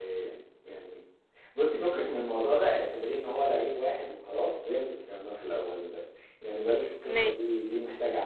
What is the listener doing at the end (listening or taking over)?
listening